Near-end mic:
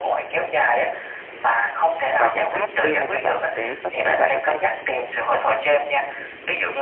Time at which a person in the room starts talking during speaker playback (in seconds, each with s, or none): 2.2 s